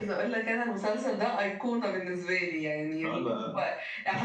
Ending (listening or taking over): listening